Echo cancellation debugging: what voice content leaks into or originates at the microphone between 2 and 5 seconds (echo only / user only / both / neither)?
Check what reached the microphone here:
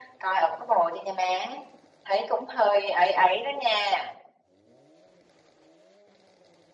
echo only